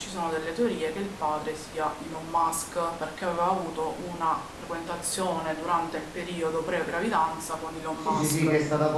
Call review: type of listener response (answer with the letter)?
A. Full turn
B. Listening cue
A